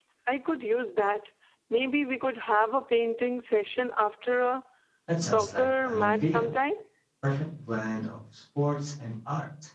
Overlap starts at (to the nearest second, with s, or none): 5 s